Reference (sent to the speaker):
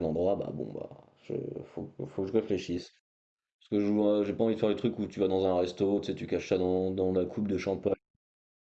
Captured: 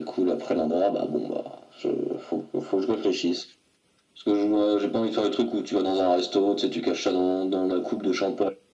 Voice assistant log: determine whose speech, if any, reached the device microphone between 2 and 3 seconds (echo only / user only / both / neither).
echo only